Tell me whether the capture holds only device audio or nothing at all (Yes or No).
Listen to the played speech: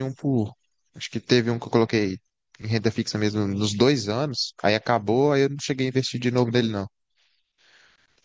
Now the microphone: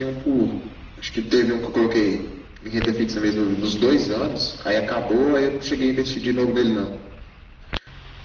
Yes